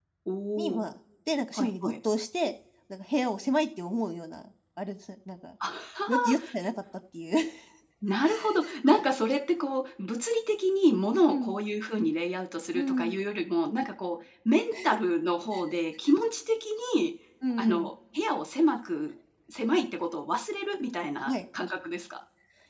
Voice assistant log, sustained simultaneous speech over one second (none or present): none